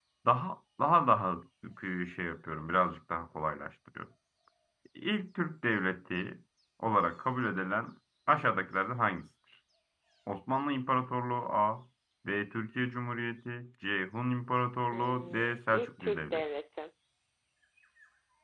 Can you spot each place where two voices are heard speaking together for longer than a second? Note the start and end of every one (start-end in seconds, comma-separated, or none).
14.9-16.4